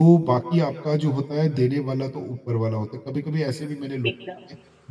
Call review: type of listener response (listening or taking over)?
listening